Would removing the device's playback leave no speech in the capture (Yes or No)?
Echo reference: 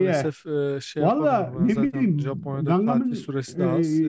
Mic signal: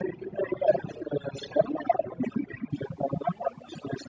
Yes